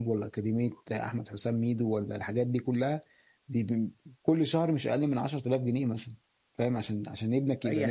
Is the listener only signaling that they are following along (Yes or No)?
No